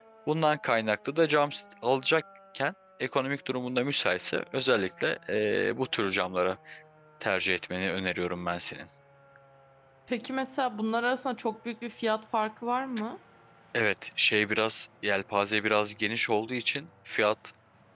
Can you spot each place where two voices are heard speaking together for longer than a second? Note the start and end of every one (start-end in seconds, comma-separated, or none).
none